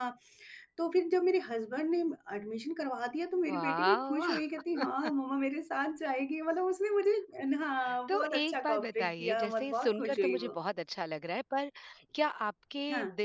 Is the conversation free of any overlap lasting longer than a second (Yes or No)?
No